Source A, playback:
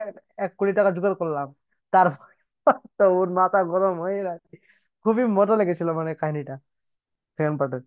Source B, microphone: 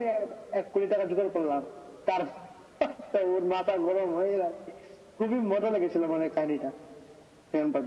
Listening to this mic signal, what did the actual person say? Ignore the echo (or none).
none